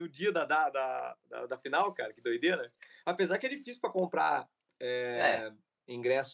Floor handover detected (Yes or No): No